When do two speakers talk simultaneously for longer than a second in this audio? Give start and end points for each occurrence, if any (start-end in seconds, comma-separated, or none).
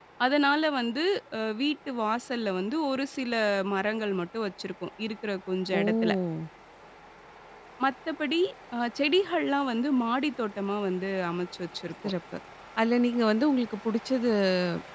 none